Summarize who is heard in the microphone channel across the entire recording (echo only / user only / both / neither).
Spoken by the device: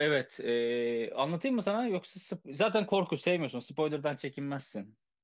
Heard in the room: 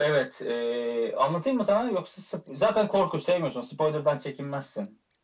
echo only